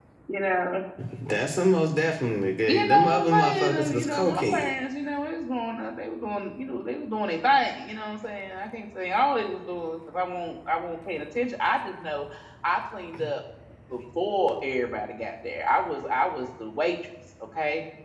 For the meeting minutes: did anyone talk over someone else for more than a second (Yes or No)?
Yes